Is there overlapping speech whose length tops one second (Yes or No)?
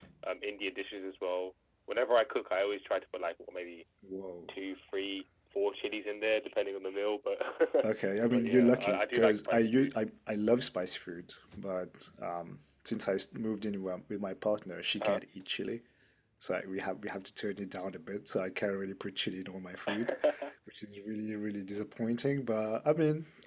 Yes